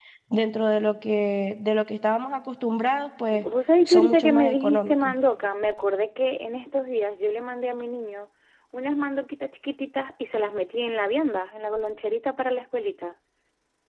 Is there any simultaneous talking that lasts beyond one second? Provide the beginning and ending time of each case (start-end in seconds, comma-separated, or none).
3.9-5.1